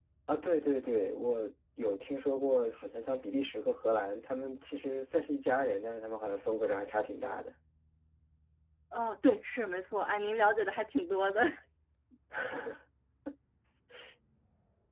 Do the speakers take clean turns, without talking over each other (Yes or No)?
Yes